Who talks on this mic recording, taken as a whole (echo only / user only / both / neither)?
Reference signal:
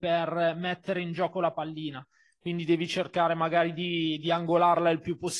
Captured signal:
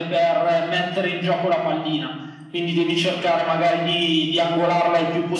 echo only